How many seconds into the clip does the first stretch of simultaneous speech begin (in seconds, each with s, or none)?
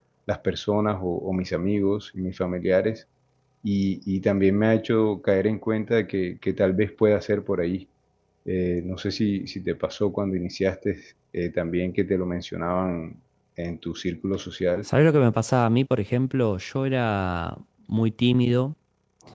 none